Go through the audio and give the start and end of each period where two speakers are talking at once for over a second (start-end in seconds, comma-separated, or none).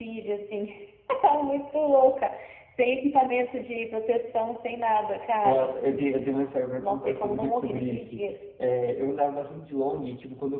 6.8-8.3